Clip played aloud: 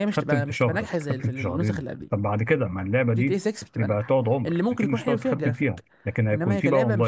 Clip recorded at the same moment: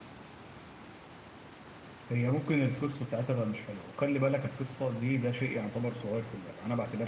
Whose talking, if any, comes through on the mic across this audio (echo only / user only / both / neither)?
user only